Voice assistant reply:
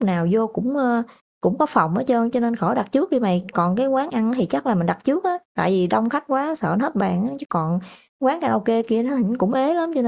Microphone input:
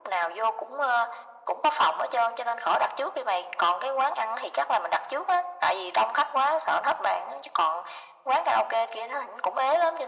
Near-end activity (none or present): none